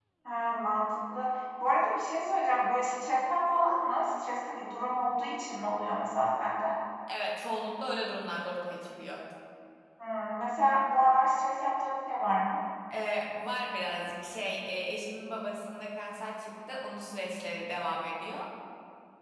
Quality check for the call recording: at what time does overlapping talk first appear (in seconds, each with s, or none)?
none